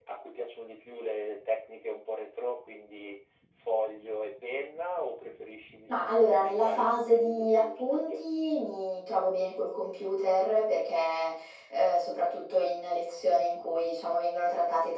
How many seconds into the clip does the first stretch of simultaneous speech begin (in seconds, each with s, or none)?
5.9 s